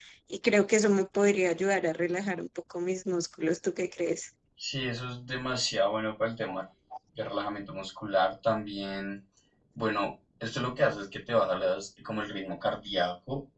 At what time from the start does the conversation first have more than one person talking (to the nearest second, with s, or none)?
none